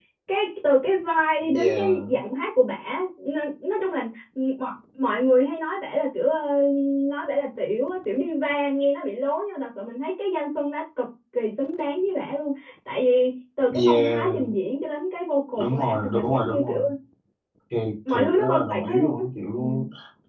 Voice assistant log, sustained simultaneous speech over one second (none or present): present